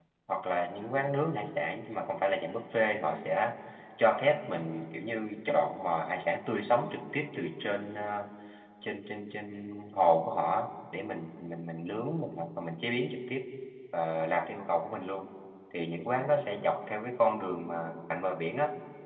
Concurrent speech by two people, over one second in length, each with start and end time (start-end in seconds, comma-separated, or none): none